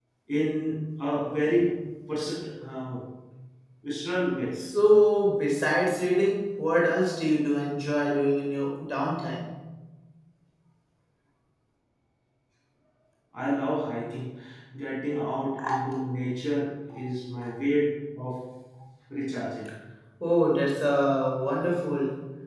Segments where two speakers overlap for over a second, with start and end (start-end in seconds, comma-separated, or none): none